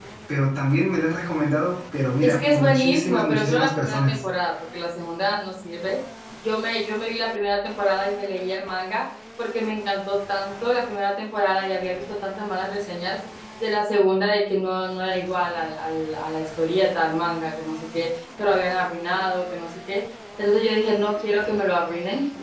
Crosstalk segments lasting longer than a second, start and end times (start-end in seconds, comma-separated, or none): 2.2-4.2